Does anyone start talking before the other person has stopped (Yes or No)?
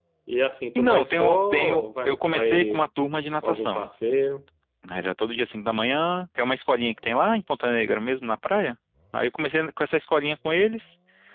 Yes